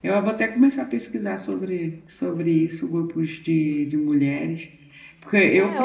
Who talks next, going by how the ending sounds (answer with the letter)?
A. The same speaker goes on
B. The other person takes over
B